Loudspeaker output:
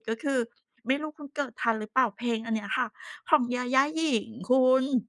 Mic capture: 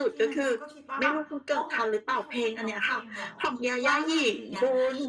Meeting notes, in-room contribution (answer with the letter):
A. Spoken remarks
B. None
A